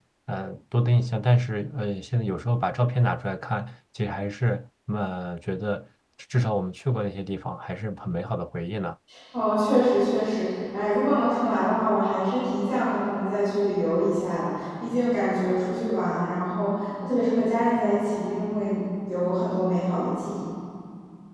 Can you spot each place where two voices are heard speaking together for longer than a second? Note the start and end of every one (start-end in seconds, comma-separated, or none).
none